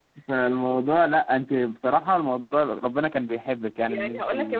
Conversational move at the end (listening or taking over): taking over